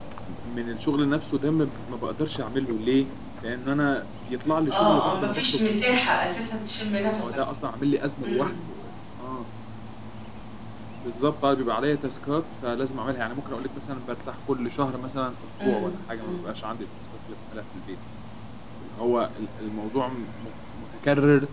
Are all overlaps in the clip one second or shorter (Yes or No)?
No